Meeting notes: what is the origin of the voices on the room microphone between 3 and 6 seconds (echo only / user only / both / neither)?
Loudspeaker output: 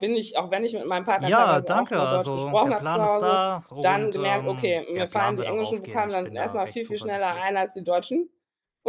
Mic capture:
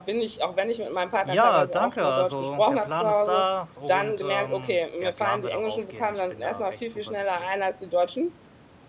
echo only